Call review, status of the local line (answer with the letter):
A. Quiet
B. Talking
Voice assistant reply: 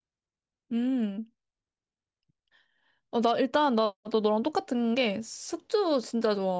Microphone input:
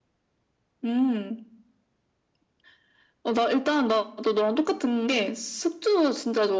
A